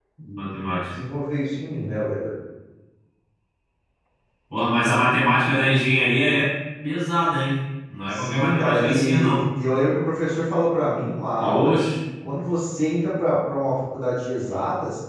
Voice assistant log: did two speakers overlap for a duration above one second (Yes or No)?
Yes